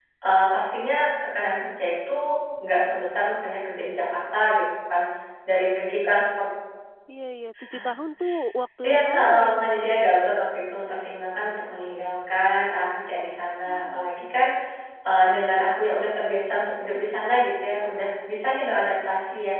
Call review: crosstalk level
present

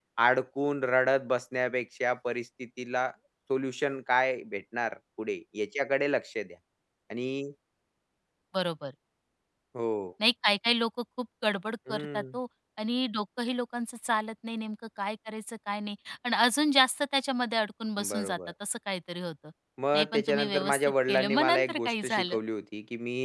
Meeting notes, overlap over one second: present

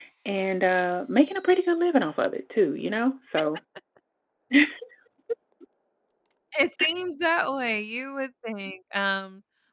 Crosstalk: none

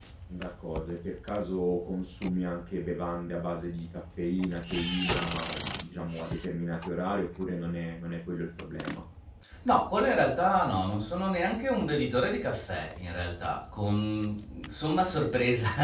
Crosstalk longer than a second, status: none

